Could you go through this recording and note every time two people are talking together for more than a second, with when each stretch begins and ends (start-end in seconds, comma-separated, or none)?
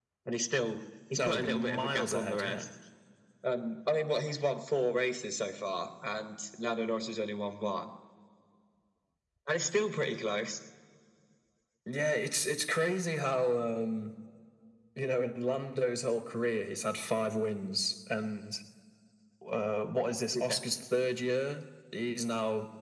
1.2-2.7